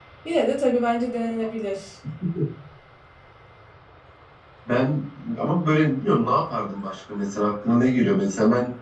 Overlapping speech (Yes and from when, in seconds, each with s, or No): No